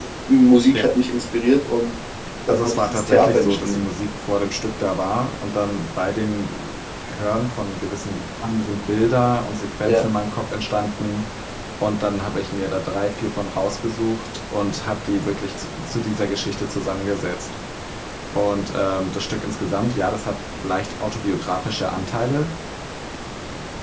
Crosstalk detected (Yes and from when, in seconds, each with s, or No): Yes, from 2.5 s